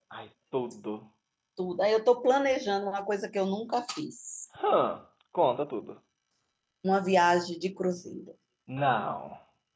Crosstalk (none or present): none